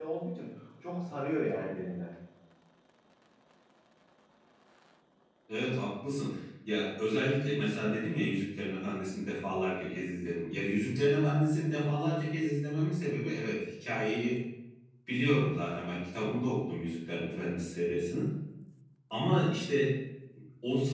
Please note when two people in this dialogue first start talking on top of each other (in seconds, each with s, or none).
none